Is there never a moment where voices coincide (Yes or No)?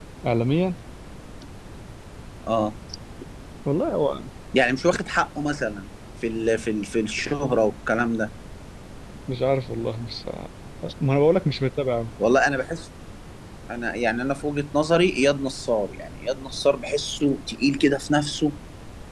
Yes